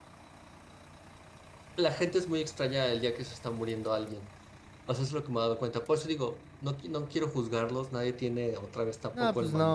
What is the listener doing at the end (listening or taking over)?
taking over